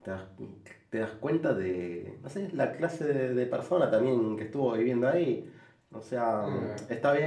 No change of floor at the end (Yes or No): Yes